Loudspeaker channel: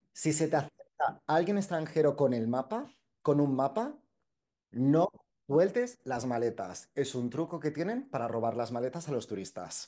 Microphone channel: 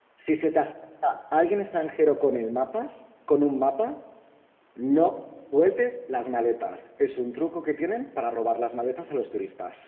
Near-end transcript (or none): none